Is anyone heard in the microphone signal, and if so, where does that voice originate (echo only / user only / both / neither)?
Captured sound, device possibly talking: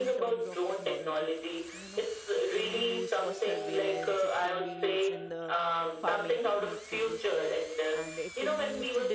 both